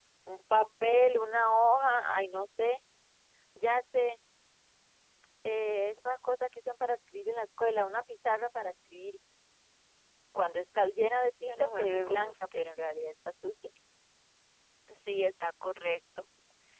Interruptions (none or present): present